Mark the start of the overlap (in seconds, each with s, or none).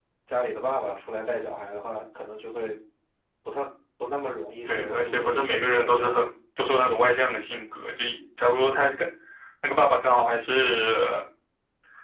4.6 s